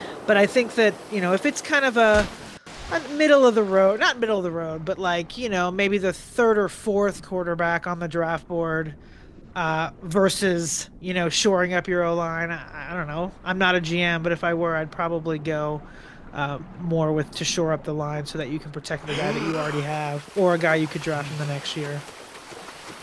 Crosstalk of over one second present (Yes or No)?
No